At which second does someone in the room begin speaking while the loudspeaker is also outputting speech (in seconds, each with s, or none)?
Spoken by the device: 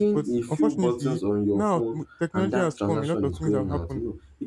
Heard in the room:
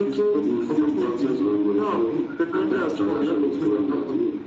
none